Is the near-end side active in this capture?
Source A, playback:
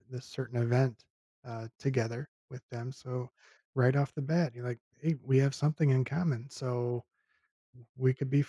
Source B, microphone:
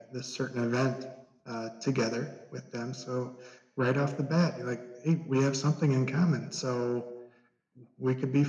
No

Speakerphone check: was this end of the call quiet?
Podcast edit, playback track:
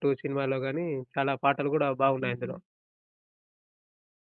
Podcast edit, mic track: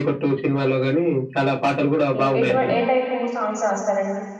No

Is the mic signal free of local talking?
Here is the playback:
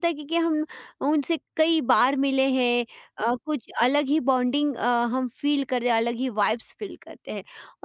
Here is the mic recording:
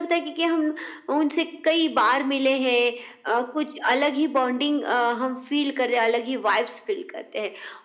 Yes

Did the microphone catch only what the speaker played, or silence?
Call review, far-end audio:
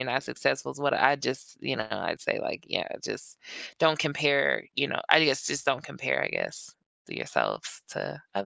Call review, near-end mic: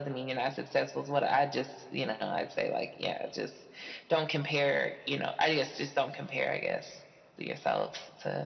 Yes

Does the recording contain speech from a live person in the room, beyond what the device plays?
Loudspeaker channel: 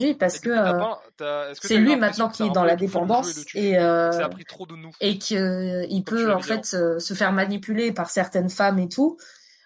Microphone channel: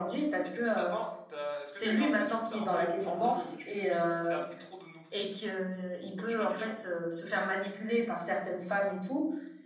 No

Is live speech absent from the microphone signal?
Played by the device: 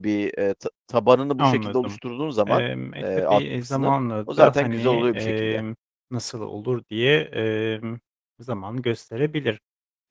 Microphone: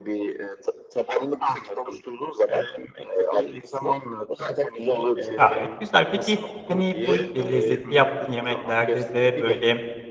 No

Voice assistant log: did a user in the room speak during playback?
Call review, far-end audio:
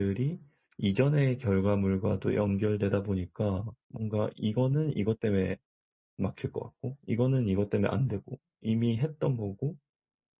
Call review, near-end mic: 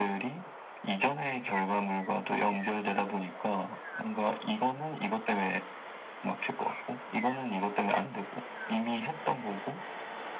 No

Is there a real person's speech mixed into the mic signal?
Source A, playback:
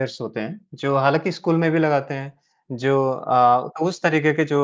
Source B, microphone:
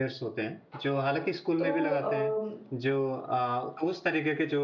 Yes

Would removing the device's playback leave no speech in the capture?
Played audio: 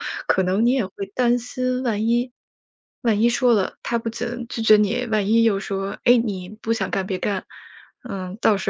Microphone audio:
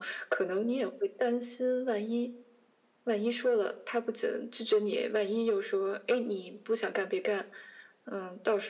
Yes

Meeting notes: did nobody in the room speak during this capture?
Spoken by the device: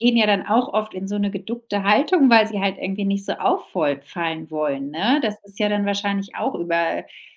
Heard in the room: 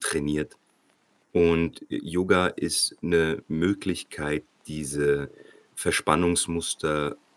No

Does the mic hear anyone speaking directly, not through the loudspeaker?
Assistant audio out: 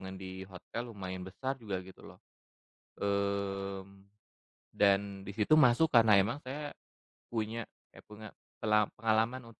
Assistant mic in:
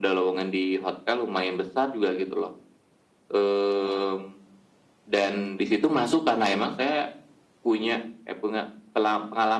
No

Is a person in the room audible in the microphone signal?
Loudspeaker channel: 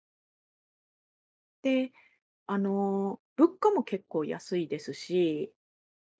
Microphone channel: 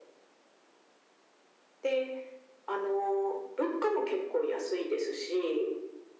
No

